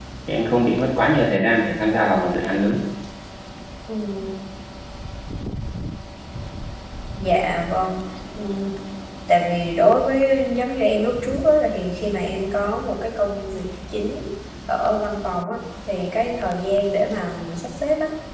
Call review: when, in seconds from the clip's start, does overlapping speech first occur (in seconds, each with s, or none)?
none